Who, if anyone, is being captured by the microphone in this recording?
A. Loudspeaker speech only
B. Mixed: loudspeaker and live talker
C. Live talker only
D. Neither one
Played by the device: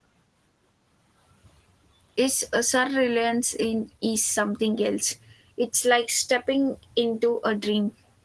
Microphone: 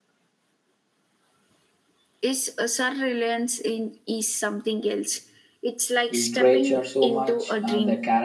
B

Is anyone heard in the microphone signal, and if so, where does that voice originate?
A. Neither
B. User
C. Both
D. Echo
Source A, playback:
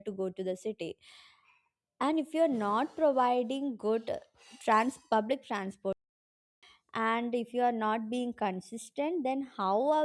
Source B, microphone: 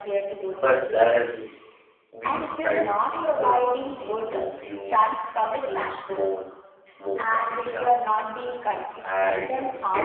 C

